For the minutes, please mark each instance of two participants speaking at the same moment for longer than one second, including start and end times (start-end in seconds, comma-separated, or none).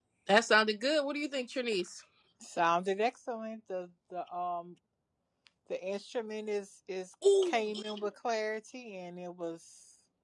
none